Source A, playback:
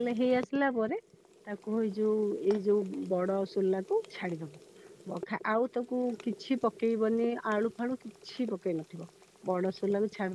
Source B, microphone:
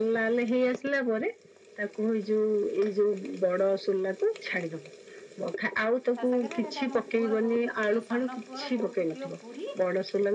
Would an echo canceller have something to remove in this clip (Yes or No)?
Yes